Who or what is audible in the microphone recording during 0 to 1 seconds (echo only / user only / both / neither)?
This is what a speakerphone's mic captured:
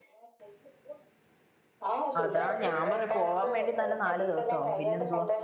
neither